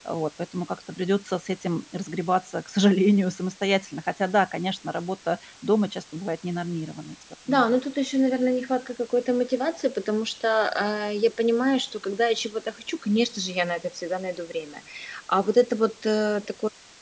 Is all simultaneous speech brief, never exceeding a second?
Yes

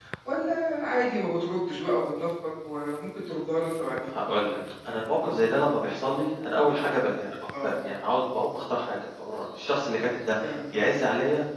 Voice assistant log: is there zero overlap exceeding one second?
Yes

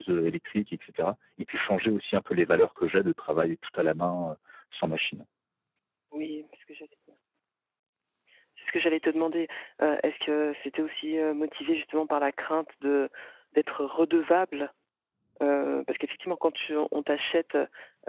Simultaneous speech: No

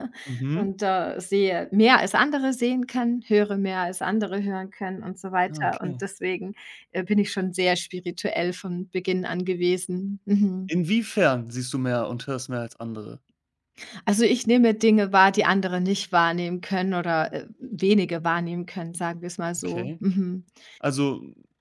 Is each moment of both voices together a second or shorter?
Yes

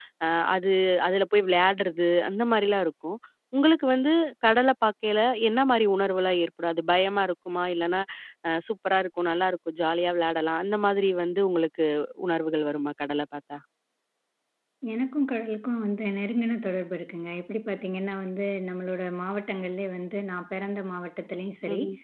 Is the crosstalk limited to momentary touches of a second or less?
Yes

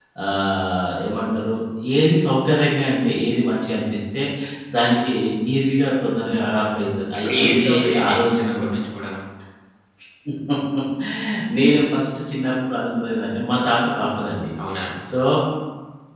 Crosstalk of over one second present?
Yes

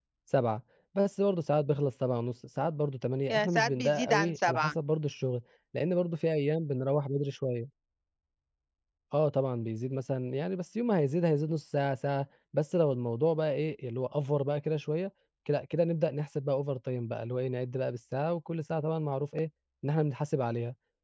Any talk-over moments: Yes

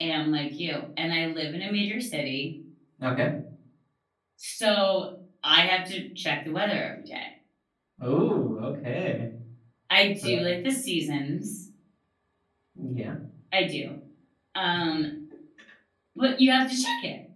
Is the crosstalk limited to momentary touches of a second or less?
Yes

